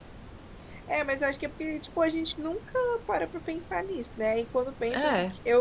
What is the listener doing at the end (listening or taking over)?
listening